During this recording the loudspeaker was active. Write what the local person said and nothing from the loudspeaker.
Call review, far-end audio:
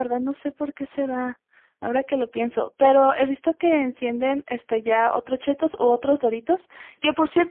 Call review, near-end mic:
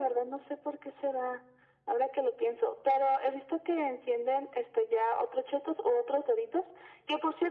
none

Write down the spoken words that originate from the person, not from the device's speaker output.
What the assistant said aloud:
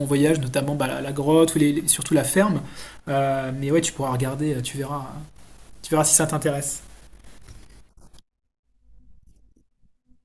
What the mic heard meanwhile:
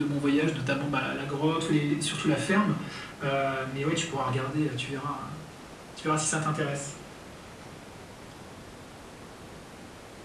none

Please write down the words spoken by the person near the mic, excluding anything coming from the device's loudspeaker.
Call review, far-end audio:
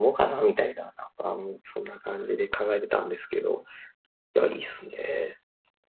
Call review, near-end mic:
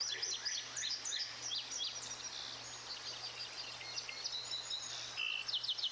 none

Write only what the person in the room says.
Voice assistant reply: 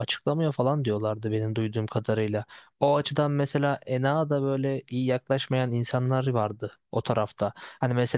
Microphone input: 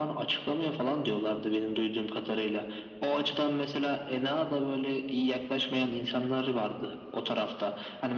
none

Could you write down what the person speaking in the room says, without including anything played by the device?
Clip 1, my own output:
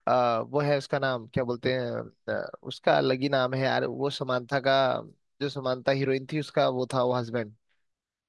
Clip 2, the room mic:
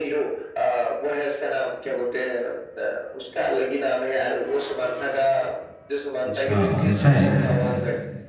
अच्छा ऐसा है

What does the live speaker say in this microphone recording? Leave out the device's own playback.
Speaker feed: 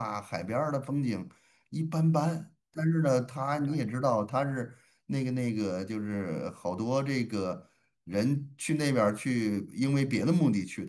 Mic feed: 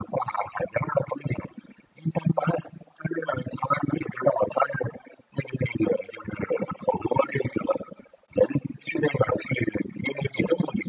none

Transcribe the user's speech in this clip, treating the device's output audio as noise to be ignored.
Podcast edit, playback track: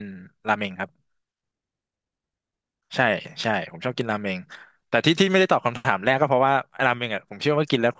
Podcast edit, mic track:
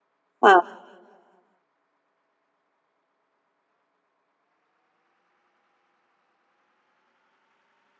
ค่ะ

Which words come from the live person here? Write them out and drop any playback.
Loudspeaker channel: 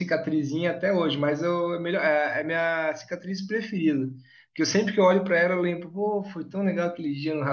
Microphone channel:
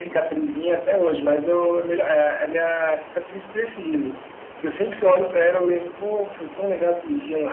none

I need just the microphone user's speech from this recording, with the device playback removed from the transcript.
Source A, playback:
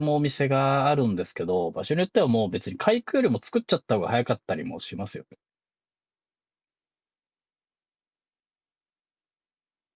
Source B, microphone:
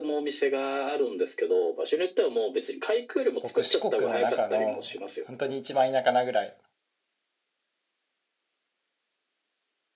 僕、四国の中の、本当に一番田舎なぐらい。

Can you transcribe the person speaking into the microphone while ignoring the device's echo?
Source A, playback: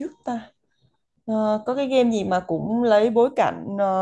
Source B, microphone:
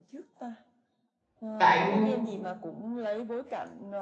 lại nhưng

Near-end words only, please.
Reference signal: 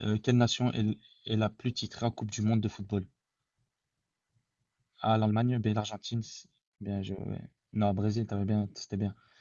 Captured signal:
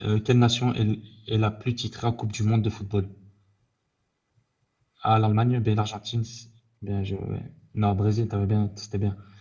none

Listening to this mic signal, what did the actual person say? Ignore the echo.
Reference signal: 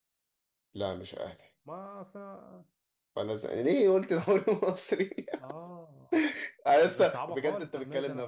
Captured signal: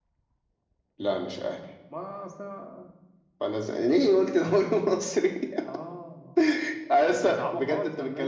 none

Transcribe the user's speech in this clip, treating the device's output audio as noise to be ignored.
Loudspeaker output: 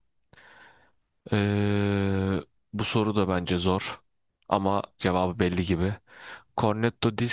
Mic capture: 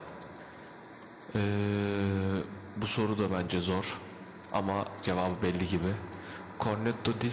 none

